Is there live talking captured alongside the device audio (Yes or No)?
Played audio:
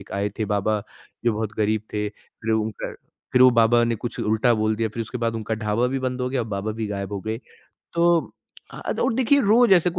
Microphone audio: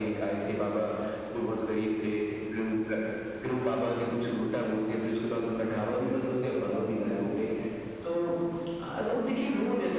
No